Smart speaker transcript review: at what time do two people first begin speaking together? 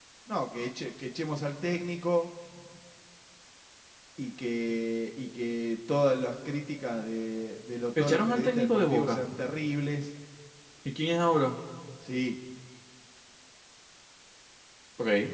8 s

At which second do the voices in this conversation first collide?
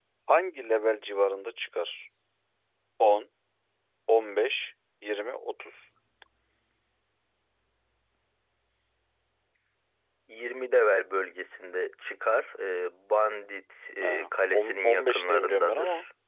14 s

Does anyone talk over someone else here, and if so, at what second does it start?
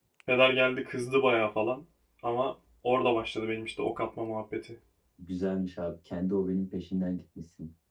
none

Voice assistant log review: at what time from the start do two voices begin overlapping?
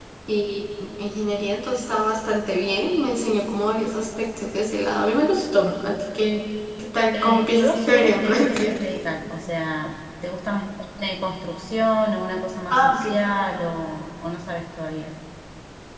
7 s

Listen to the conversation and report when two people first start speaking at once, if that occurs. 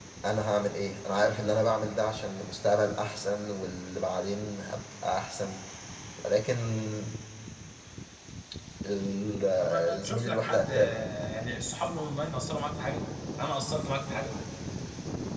10 s

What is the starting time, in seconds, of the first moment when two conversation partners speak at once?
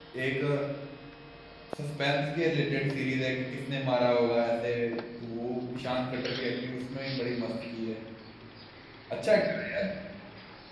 none

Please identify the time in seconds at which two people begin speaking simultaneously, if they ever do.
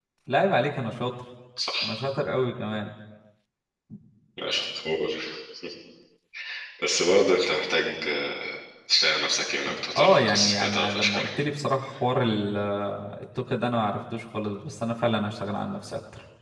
10 s

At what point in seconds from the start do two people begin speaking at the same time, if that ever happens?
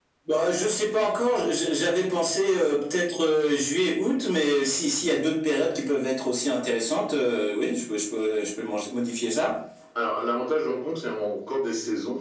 none

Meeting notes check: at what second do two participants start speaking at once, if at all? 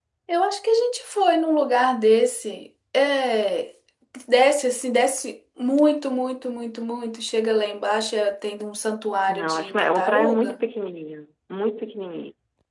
9 s

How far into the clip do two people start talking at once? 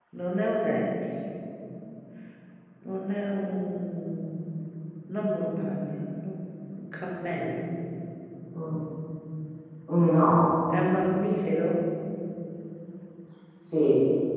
none

